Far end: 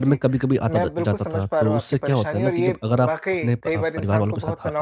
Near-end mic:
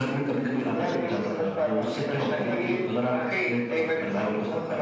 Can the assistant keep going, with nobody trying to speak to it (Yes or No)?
No